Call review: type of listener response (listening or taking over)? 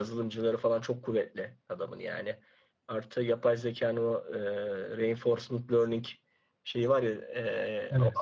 listening